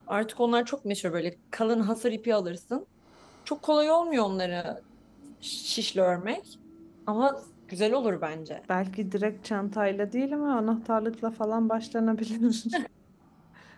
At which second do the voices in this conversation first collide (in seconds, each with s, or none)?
none